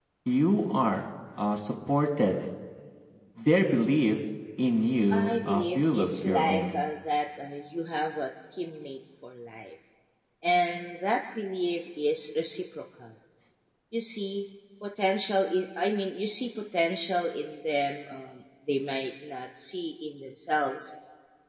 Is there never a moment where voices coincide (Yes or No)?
No